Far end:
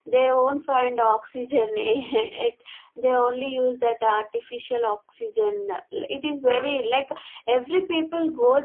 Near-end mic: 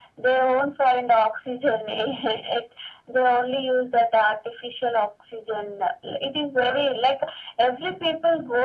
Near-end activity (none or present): none